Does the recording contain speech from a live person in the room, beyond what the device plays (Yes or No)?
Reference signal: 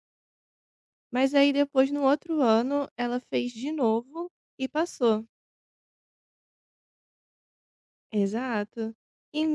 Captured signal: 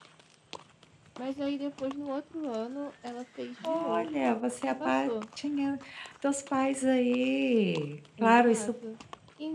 Yes